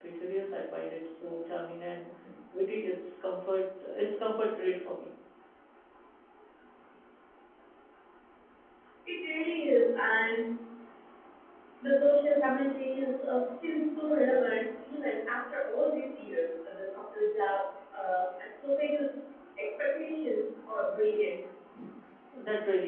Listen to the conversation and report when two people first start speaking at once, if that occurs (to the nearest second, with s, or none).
none